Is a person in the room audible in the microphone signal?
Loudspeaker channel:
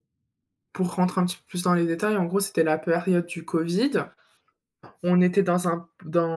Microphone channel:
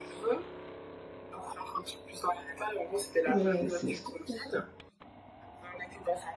Yes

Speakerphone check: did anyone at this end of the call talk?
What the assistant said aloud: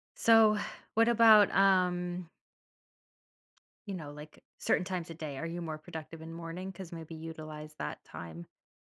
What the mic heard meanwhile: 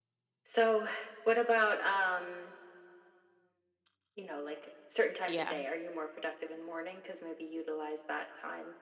Yes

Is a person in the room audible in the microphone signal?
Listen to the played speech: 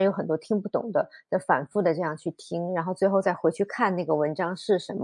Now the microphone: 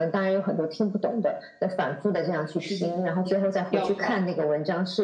Yes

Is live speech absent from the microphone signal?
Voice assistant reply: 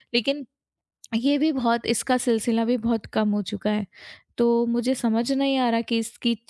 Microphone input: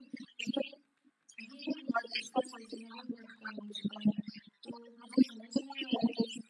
Yes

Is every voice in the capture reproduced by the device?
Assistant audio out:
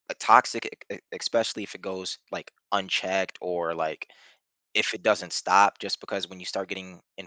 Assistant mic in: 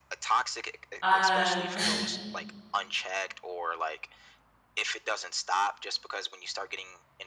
No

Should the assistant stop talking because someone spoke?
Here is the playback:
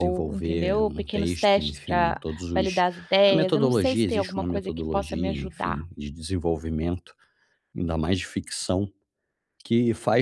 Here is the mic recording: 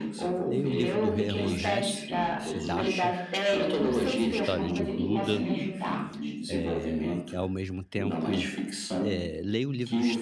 Yes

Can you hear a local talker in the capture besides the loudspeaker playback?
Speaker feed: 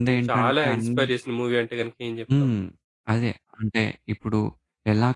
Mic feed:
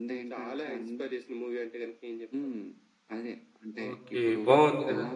Yes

